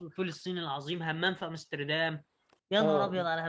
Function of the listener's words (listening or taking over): taking over